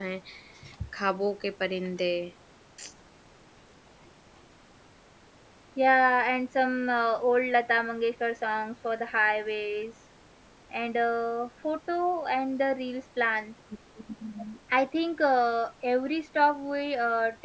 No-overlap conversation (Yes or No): Yes